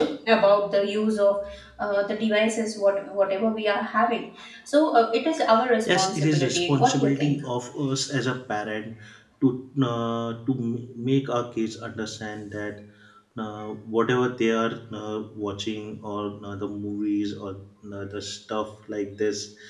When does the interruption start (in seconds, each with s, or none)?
5.9 s